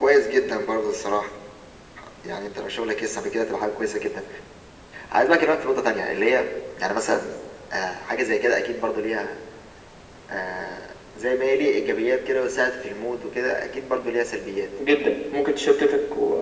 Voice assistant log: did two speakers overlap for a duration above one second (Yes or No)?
No